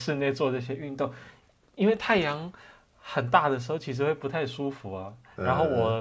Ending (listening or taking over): listening